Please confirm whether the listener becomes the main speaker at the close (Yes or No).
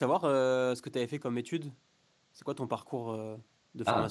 Yes